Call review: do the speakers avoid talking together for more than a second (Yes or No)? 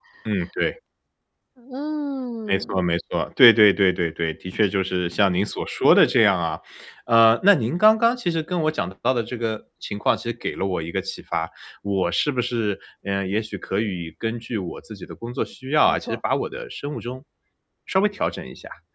Yes